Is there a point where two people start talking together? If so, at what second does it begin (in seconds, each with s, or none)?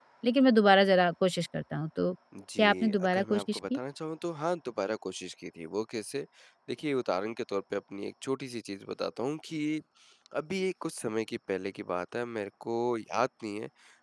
2.6 s